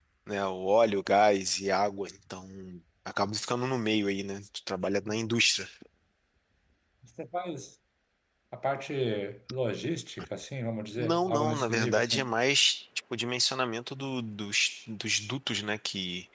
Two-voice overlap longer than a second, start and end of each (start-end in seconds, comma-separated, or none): 11.0-12.3